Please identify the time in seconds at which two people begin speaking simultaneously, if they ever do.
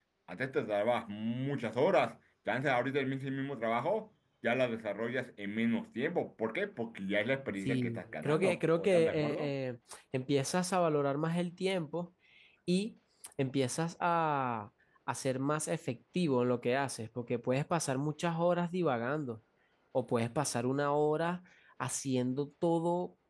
7.6 s

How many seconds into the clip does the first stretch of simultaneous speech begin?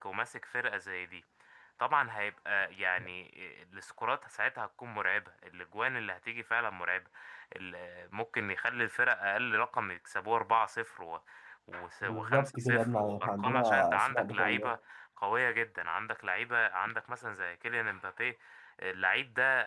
12.0 s

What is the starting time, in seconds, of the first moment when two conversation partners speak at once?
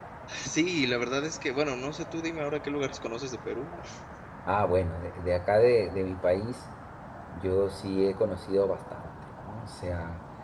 none

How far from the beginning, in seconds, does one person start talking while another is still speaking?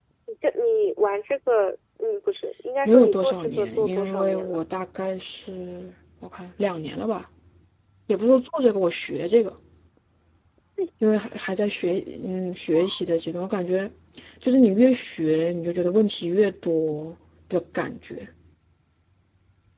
2.9 s

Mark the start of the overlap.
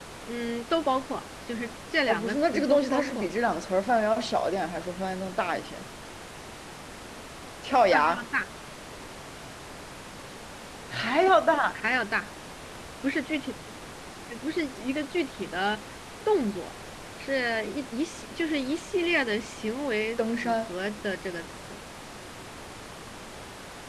2.1 s

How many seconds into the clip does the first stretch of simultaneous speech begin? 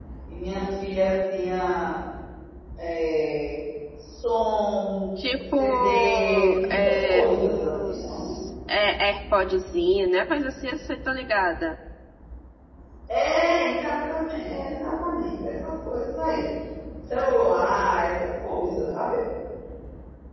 5.2 s

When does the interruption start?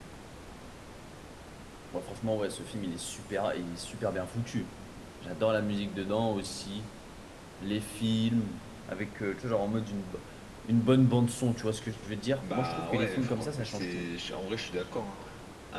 12.4 s

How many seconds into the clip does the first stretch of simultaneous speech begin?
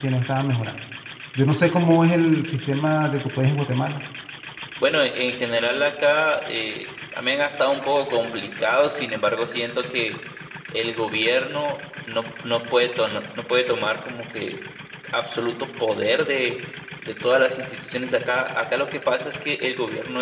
none

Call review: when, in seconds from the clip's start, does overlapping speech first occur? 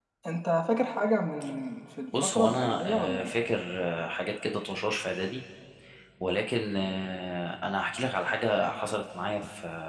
2.1 s

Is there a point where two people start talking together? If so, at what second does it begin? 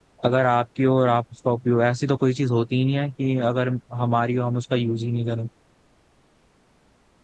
none

